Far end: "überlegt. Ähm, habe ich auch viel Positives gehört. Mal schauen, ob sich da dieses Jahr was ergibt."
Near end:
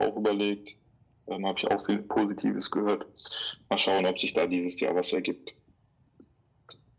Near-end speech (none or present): none